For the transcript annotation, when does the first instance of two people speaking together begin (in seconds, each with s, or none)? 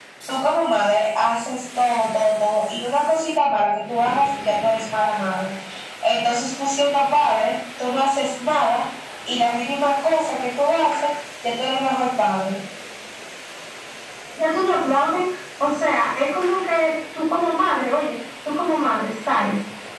none